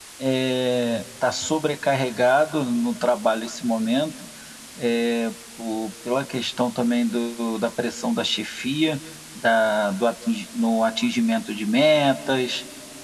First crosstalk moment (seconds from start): none

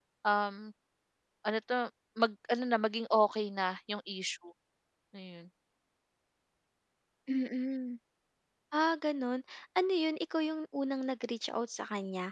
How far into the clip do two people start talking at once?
none

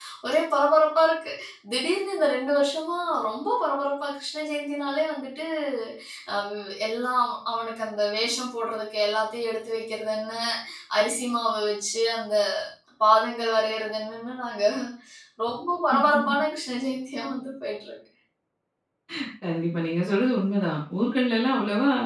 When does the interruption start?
none

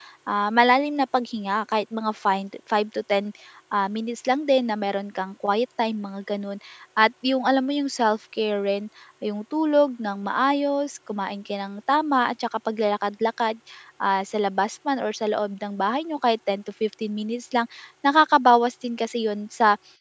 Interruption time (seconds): none

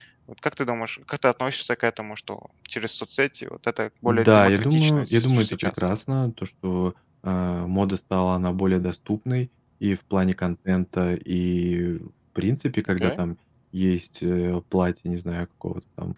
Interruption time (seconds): 4 s

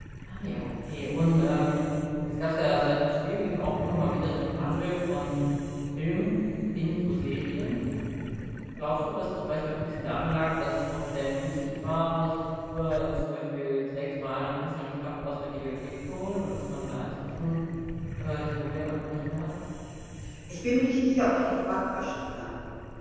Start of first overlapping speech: none

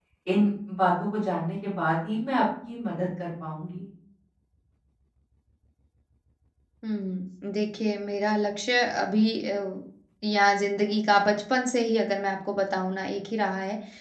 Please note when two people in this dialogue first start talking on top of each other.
none

